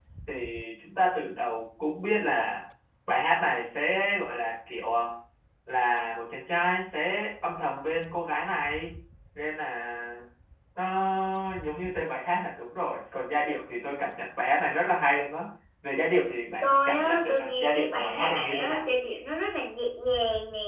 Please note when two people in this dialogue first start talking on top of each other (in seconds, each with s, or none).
16.6 s